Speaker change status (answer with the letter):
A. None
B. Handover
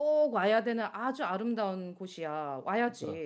B